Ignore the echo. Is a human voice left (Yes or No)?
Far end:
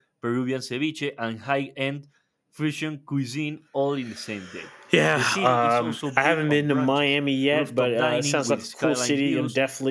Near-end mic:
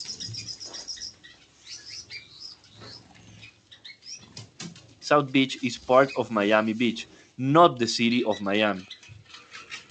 Yes